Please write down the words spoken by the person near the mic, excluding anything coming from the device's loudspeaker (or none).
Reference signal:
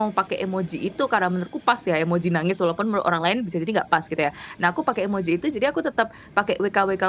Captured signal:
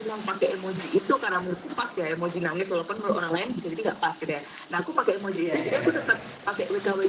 Iya iya, heeh.